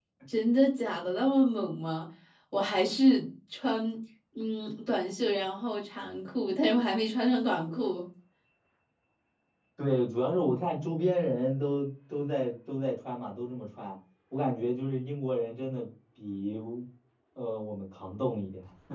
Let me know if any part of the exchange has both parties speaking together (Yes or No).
No